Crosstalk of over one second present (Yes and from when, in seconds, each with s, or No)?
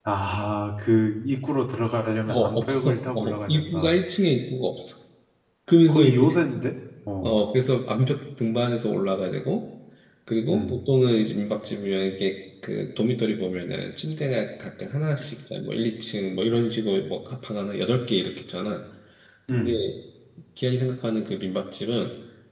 Yes, from 2.3 s